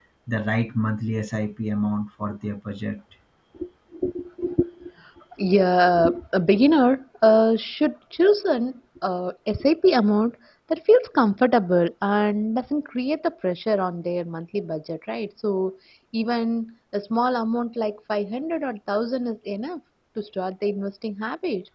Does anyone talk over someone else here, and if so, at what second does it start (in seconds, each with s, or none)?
none